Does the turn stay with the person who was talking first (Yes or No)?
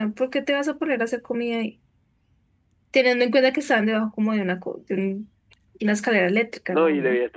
No